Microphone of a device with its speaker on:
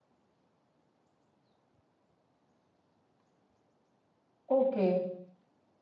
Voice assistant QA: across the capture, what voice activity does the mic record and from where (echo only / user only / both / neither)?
user only